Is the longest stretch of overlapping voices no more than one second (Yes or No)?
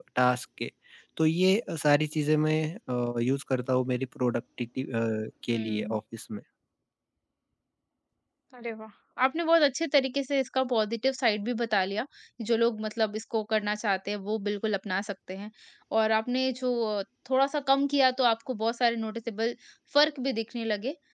Yes